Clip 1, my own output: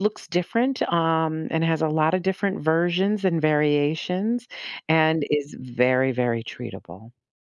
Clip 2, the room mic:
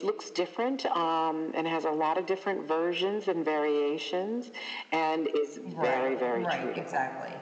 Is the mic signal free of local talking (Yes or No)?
No